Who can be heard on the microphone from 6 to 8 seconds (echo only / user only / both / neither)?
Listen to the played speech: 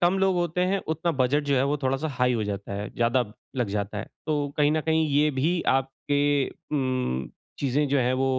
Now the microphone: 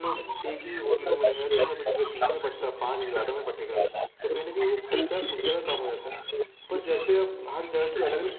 both